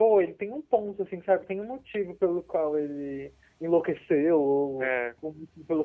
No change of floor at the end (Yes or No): Yes